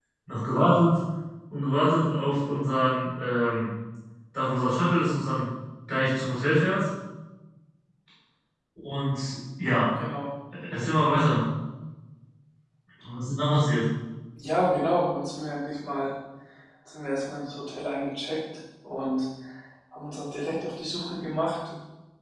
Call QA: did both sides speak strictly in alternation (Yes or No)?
Yes